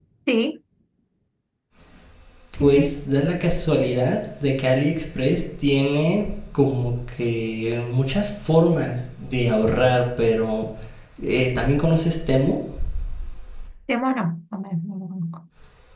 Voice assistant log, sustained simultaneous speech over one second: none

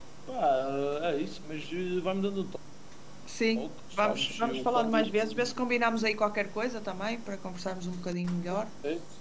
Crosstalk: present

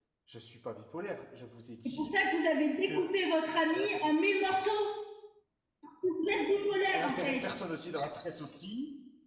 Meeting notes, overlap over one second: none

